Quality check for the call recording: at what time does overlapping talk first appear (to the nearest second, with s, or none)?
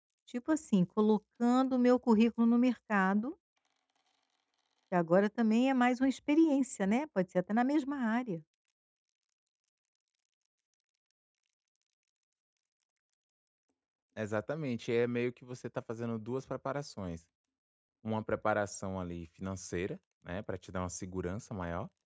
none